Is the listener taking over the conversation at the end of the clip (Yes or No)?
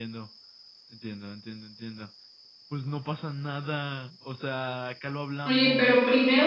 Yes